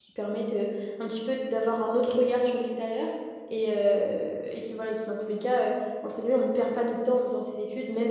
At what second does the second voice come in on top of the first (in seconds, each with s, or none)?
none